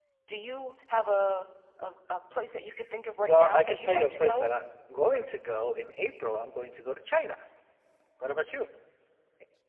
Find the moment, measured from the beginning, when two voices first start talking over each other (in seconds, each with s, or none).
3.3 s